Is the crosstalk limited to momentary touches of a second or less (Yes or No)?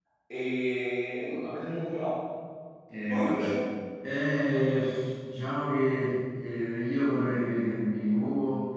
Yes